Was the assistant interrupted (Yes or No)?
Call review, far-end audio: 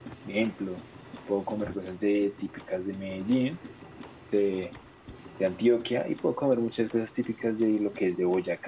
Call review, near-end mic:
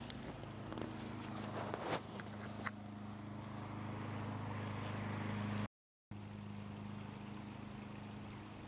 No